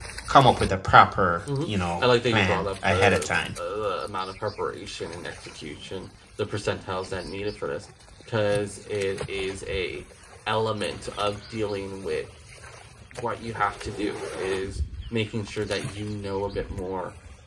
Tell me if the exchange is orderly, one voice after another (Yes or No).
No